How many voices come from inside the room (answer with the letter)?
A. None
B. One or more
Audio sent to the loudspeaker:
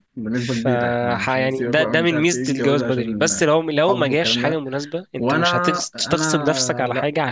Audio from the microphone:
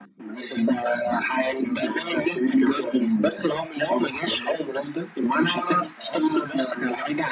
A